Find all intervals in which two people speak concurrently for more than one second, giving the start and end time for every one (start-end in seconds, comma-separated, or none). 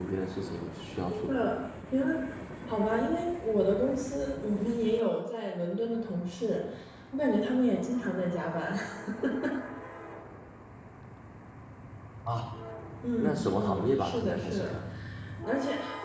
13.2-14.7